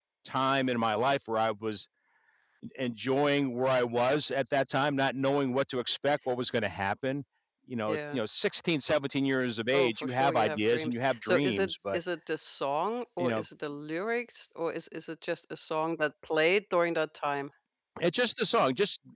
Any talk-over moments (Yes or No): Yes